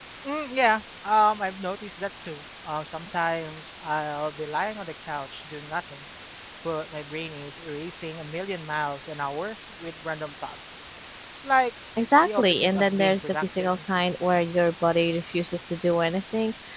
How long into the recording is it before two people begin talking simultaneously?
12.2 s

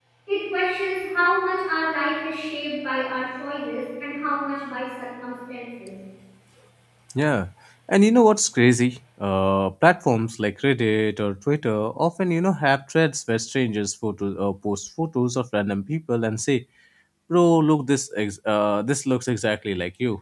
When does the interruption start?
none

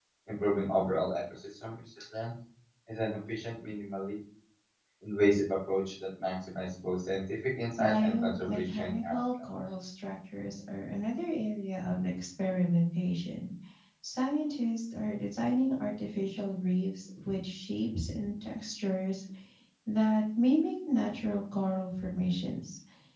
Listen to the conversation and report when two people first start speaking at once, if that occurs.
7.8 s

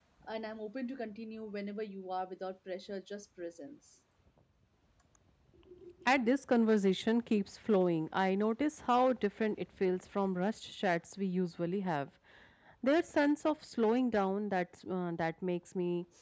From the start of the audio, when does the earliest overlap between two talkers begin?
none

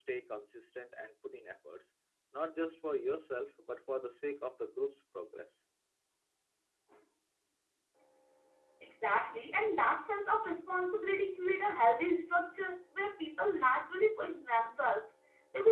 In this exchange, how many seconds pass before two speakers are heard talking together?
none

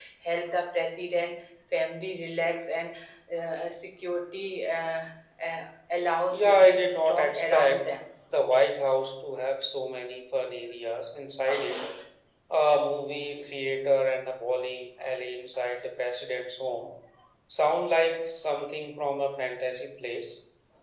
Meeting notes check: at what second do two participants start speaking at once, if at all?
6.3 s

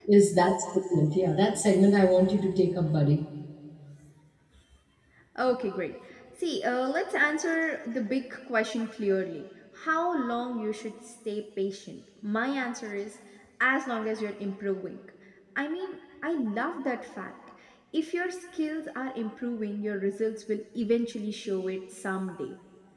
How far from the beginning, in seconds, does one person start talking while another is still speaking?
none

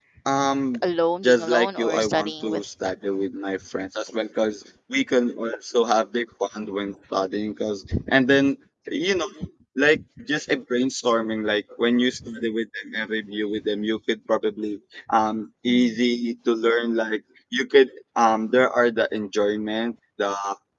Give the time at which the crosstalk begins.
1.2 s

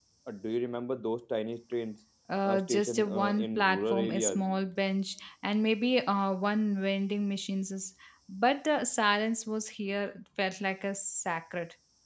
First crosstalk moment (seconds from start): 2.4 s

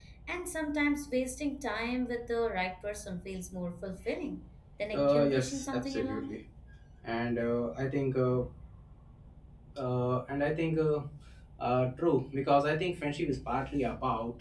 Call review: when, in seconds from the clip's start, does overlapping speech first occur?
4.9 s

